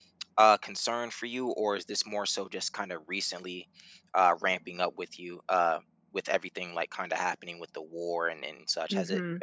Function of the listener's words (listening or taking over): taking over